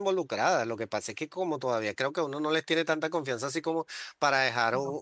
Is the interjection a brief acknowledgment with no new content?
Yes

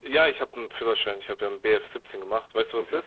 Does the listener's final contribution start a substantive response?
Yes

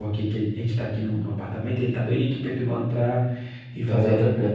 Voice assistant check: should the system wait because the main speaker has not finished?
Yes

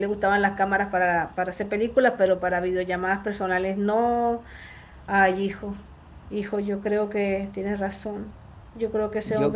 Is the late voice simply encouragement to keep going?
No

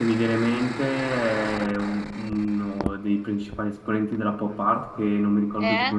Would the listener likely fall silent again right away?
Yes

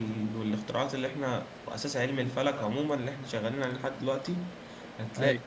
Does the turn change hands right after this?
No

